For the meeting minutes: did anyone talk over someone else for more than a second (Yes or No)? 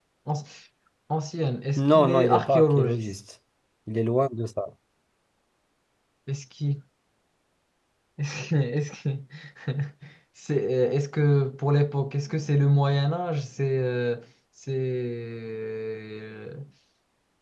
Yes